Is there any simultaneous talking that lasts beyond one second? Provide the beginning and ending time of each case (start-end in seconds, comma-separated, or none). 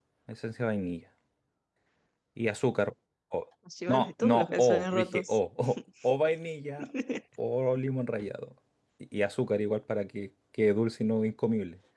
3.9-5.4